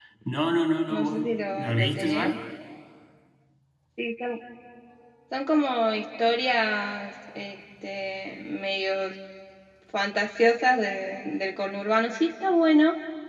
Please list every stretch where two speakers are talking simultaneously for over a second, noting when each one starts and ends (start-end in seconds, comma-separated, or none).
0.9-2.3